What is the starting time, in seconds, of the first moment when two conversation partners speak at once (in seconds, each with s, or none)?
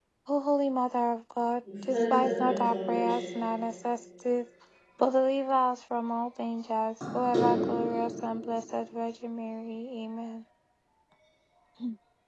1.6 s